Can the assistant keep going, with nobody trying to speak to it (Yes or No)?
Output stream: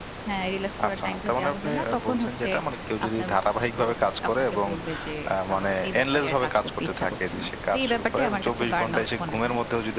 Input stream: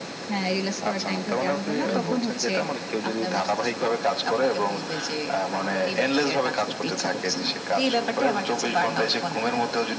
No